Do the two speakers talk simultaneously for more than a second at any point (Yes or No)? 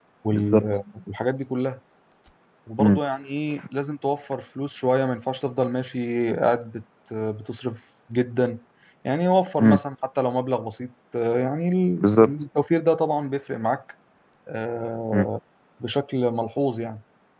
No